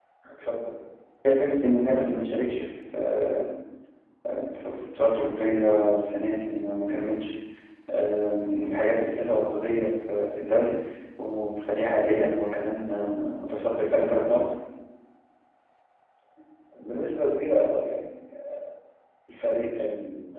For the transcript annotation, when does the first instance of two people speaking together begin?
none

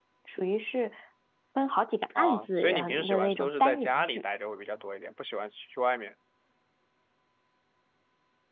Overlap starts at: 2 s

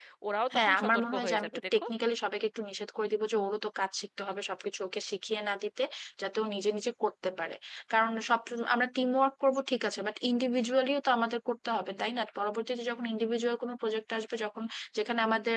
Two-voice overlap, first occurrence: 1 s

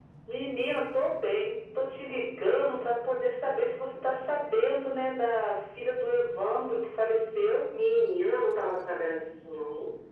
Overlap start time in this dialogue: none

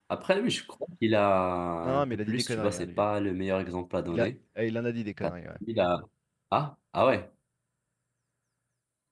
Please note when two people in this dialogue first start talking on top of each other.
2 s

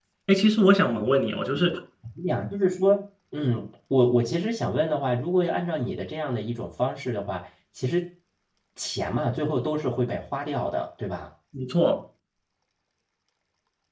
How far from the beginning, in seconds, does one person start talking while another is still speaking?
none

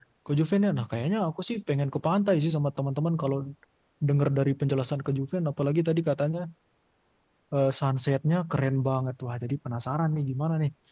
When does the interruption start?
none

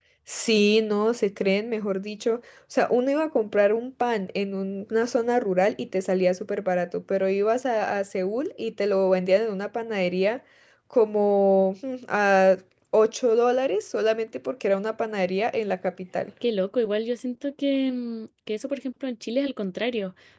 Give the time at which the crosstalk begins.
none

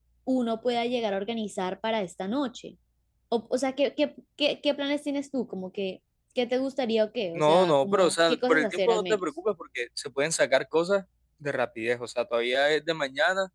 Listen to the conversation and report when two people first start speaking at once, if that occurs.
7 s

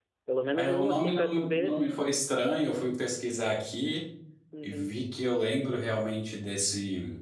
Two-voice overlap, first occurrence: 1 s

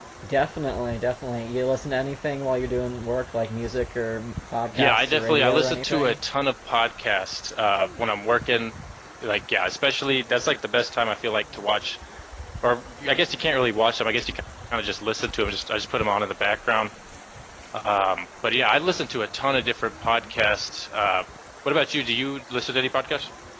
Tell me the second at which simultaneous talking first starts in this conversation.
5 s

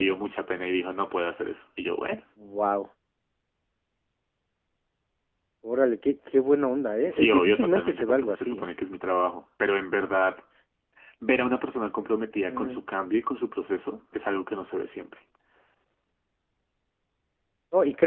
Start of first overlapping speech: 7 s

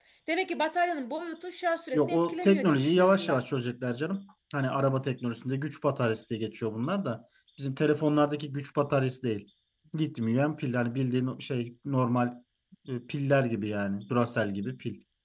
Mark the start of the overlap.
2 s

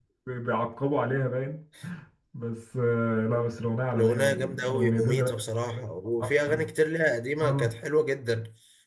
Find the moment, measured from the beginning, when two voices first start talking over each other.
4 s

